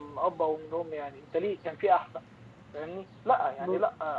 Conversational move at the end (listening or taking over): listening